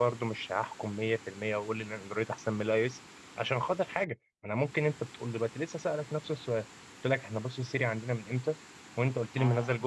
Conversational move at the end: listening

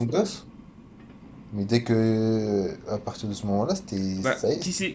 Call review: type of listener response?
taking over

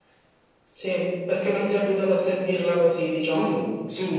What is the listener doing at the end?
taking over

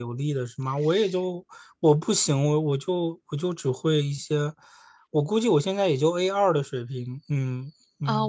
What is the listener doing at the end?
taking over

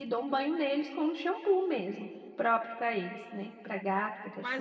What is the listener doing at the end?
taking over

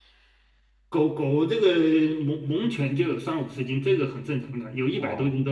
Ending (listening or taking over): taking over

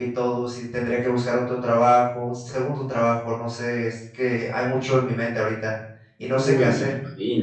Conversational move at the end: taking over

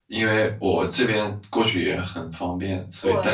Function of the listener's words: taking over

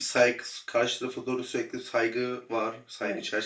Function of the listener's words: taking over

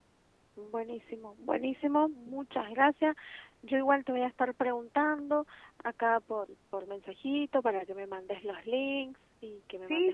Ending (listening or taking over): taking over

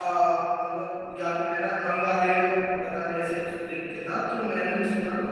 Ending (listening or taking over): taking over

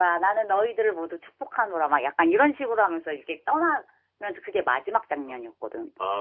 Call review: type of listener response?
taking over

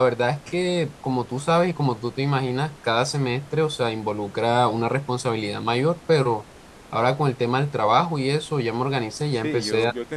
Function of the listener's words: taking over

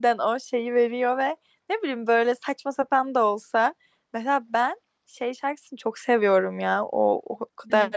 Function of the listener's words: listening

